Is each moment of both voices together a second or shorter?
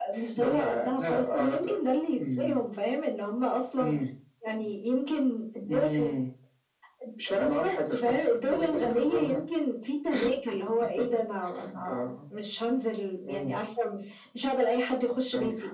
No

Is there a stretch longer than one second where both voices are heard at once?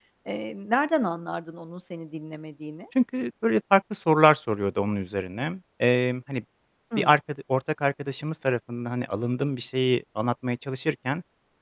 No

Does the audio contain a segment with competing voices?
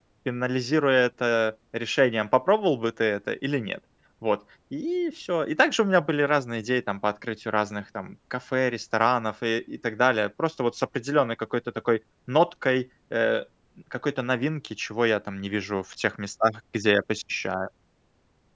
No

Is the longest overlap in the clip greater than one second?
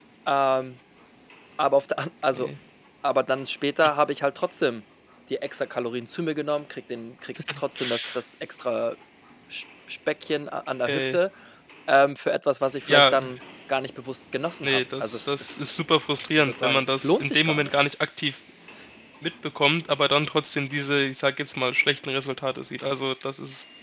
Yes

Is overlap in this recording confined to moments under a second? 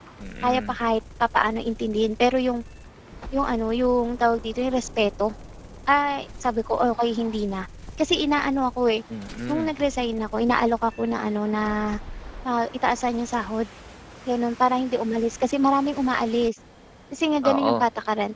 Yes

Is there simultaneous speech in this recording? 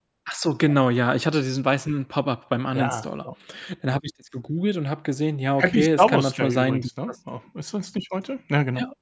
Yes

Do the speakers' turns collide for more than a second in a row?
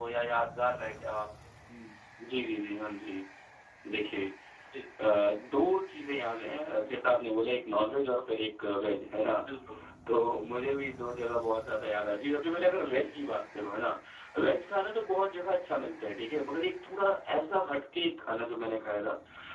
No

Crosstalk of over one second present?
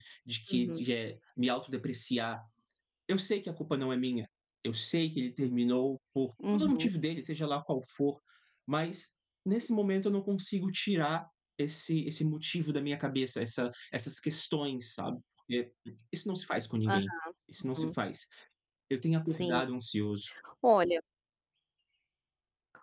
No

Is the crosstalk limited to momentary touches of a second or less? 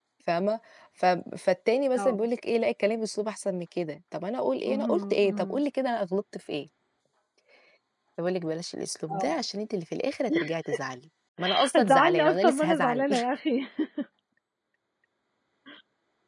No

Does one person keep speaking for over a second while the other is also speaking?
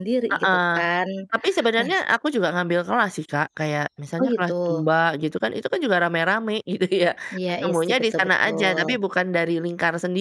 Yes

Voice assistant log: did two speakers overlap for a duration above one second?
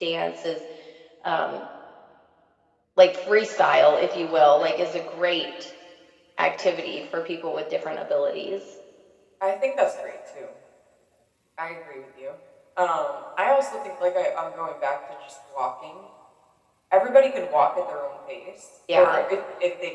No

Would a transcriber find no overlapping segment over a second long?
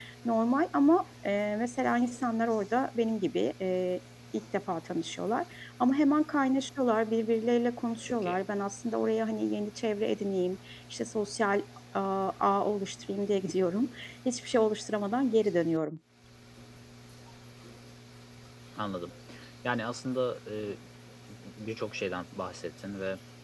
Yes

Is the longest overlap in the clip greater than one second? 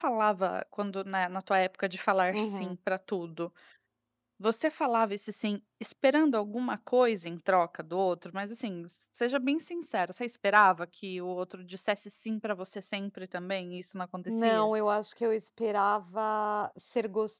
No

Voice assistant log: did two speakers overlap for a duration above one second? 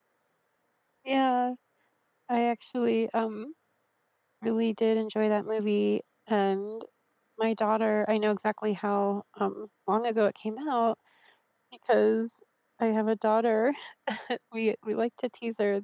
No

